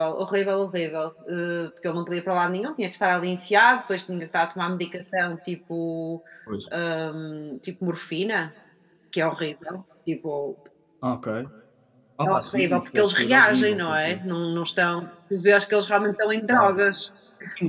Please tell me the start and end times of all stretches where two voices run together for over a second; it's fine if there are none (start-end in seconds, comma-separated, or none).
12.3-14.2